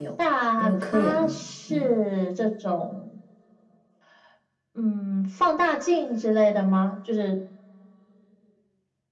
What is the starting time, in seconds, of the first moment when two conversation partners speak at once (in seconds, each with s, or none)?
0.6 s